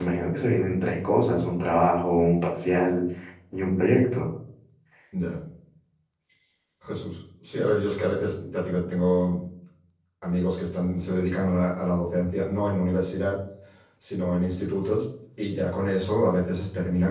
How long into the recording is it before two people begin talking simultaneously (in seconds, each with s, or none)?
none